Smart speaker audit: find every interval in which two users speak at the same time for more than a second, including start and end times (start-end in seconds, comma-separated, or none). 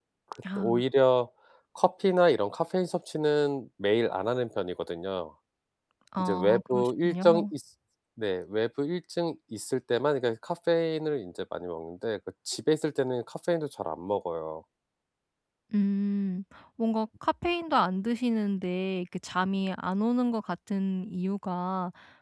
6.2-7.5